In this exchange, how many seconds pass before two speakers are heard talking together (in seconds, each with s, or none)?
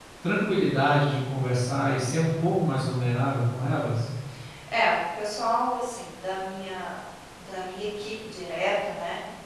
none